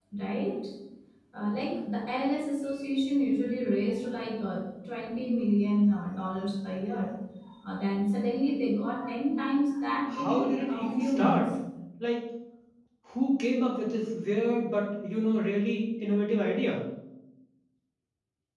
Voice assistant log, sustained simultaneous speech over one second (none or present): present